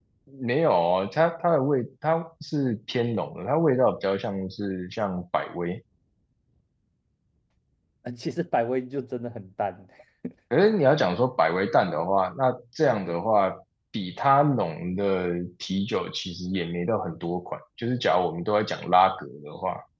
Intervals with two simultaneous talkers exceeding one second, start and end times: none

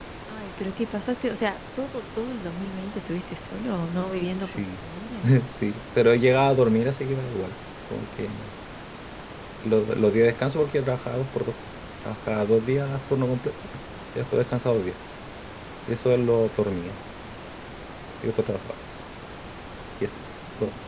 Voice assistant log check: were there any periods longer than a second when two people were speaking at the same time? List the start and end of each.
none

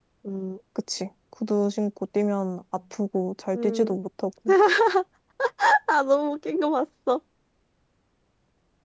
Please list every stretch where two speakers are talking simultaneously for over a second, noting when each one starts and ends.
none

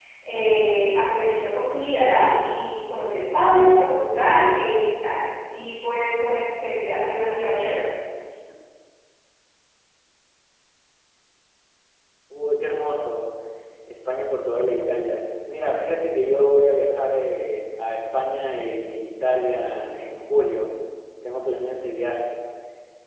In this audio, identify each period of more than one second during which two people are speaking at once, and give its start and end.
none

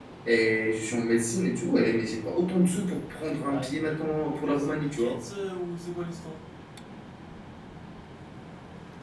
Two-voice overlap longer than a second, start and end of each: 3.5-5.1

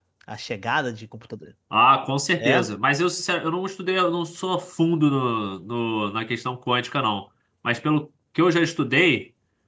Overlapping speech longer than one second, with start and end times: none

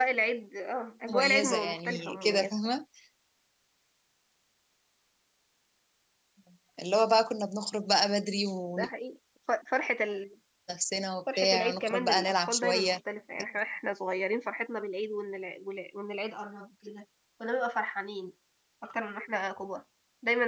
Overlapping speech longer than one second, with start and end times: 1.1-2.5, 11.4-13.0

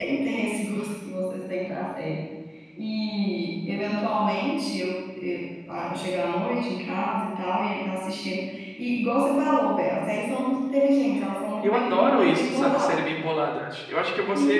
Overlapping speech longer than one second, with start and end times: 11.6-13.0

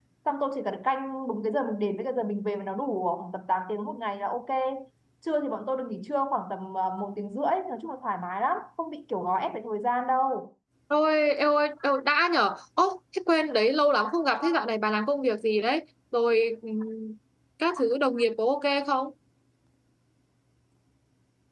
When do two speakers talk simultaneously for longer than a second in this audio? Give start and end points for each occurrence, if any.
none

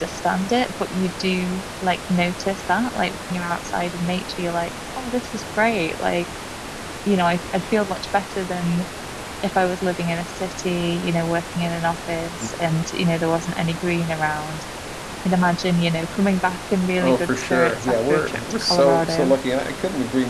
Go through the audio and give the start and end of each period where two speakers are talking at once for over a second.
17.0-19.4

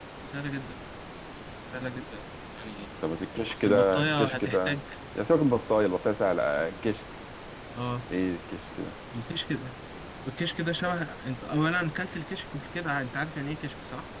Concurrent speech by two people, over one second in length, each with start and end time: 3.5-4.8

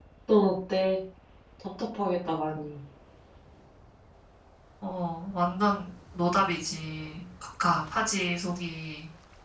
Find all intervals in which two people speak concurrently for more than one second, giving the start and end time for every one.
none

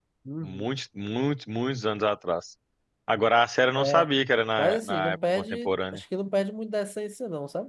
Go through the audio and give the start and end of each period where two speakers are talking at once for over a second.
4.6-6.0

